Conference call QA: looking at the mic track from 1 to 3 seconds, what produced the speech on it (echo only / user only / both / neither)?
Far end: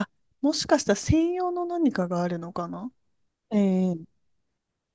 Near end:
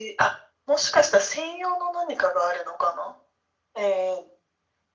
echo only